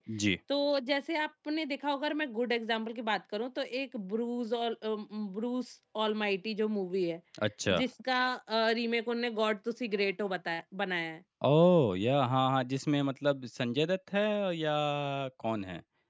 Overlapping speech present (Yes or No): No